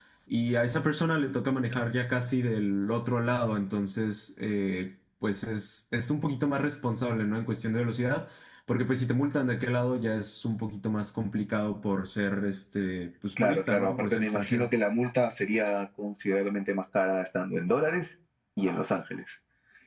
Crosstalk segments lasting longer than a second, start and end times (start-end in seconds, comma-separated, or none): 13.4-14.7